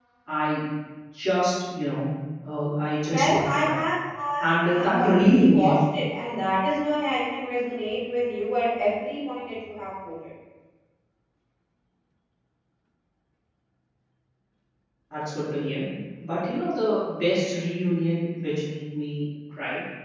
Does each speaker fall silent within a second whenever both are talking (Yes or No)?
No